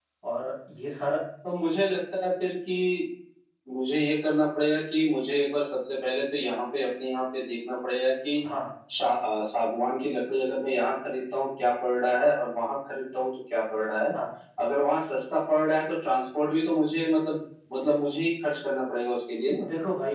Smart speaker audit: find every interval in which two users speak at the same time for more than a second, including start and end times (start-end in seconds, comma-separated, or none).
none